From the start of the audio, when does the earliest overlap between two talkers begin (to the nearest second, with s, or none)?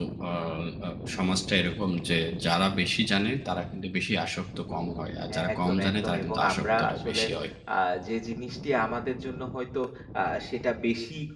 5 s